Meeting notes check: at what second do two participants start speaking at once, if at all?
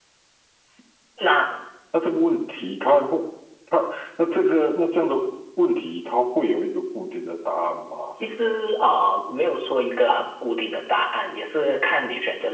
none

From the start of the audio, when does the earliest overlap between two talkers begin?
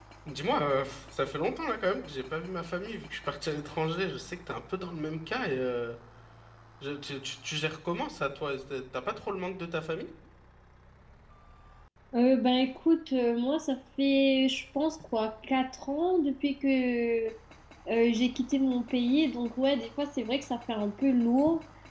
none

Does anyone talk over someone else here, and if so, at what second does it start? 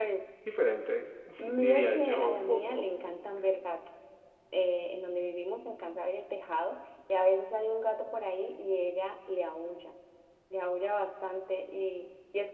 1.6 s

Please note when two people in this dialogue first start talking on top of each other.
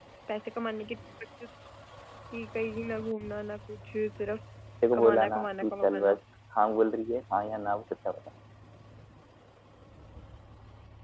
4.9 s

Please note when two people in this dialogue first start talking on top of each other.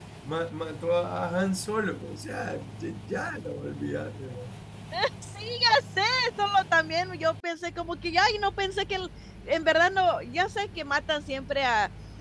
none

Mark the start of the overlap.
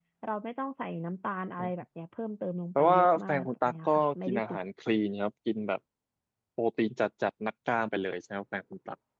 2.8 s

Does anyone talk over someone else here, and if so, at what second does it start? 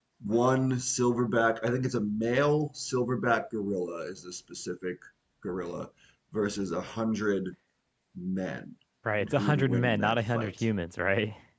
9.2 s

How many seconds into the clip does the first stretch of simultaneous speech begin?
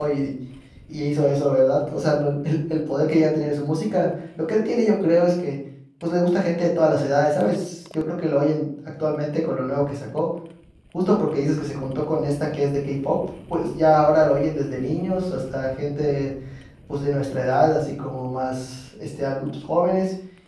none

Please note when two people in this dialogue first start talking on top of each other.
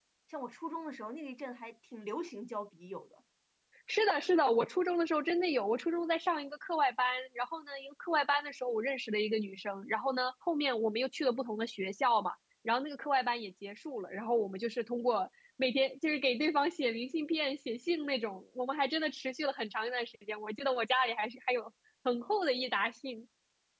none

